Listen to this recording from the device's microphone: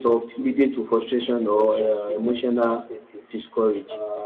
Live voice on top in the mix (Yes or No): Yes